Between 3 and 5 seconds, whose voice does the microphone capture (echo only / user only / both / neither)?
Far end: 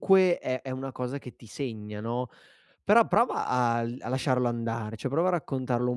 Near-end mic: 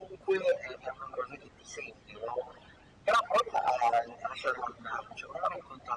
echo only